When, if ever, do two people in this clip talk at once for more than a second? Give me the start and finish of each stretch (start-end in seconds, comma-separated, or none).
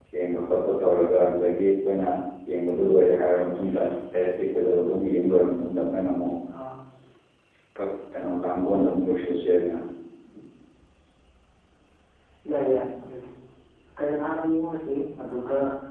none